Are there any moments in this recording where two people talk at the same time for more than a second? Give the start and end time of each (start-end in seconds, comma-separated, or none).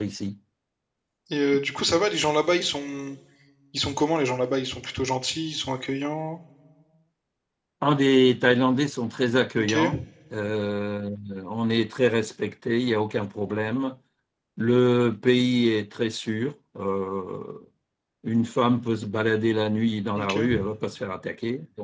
none